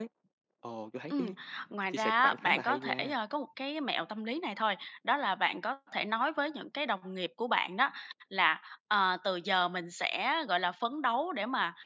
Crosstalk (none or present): present